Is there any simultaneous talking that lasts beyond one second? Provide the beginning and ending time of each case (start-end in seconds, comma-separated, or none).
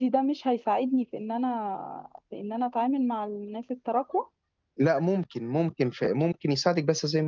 none